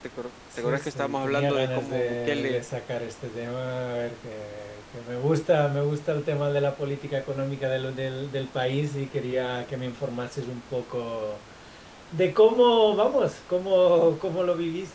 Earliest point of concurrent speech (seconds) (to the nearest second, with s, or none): 1 s